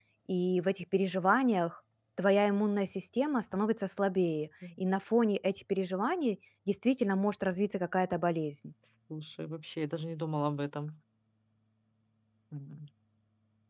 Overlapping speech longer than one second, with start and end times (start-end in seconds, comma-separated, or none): none